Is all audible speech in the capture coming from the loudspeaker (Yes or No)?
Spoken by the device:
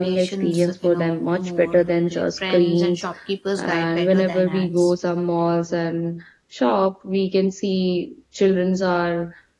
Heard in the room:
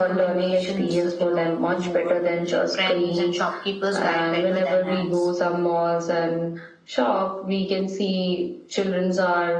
Yes